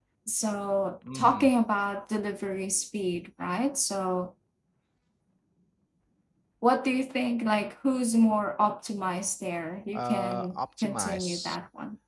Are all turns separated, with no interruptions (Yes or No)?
No